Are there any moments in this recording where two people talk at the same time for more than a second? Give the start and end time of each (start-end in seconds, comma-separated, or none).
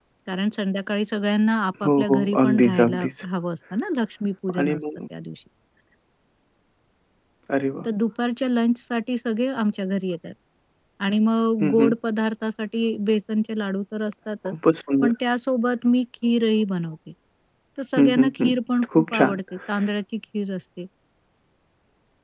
1.9-3.1